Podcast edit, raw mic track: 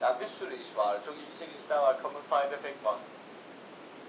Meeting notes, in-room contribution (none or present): none